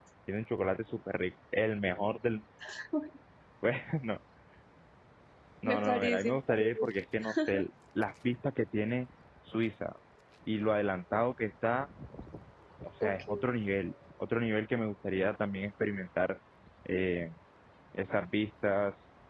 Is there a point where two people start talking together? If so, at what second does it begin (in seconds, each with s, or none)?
5.7 s